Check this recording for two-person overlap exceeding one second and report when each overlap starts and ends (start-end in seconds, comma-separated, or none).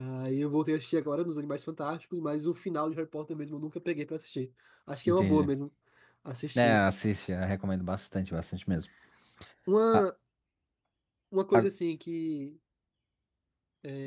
none